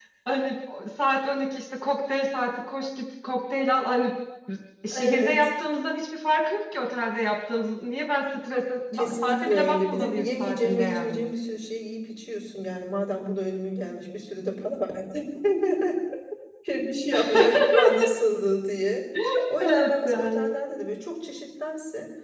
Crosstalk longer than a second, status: present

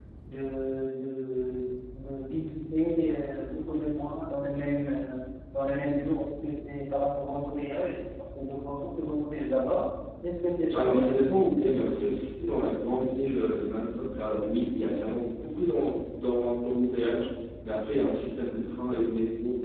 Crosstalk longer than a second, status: none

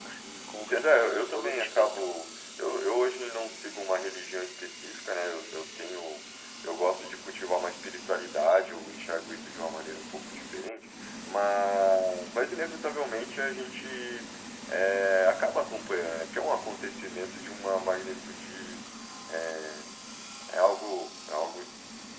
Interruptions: present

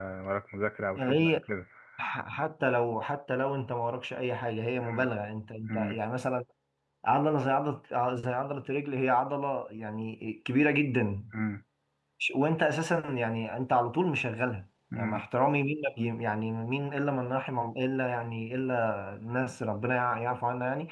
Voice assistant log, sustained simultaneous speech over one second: none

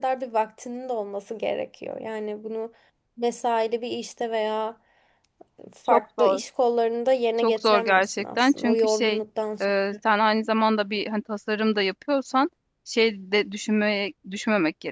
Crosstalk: present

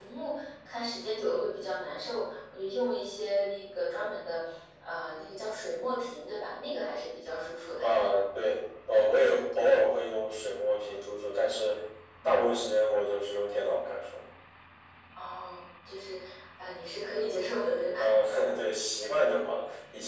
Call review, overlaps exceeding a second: none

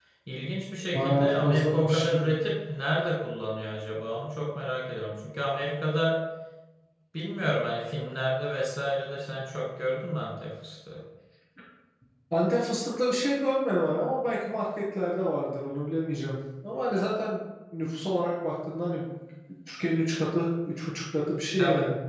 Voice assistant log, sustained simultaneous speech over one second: present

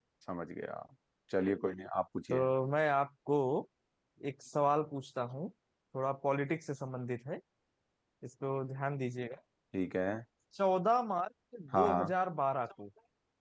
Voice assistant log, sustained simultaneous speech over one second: none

